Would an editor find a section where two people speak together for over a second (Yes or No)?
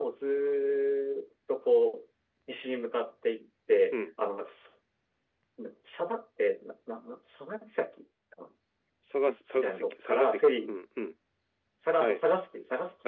Yes